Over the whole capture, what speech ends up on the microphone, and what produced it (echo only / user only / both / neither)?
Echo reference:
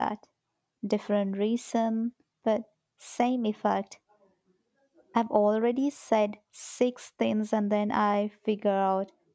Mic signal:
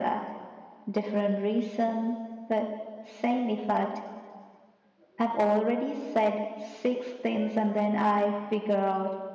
echo only